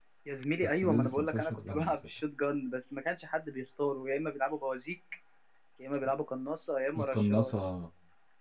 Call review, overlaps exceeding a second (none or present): present